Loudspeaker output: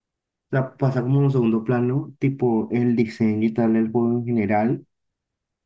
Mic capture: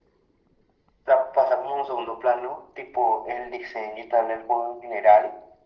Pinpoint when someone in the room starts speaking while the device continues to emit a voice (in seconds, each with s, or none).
none